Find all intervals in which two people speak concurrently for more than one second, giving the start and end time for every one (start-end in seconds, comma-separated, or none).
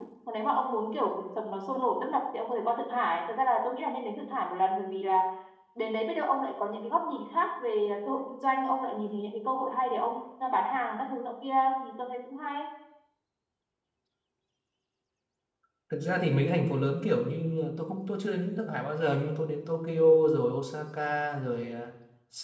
none